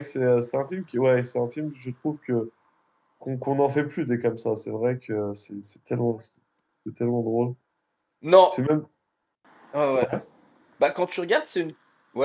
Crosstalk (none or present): none